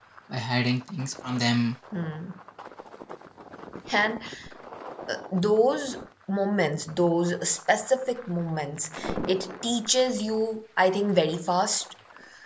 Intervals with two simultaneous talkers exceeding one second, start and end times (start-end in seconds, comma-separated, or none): none